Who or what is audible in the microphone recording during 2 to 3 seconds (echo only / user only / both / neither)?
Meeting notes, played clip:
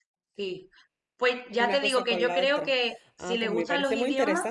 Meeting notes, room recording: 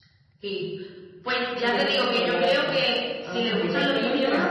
echo only